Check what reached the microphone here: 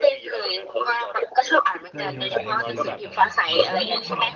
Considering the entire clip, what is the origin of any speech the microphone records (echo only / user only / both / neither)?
both